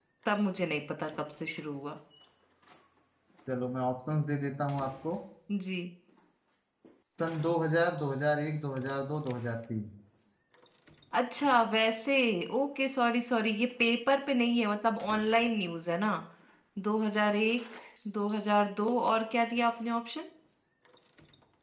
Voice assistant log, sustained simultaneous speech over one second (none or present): none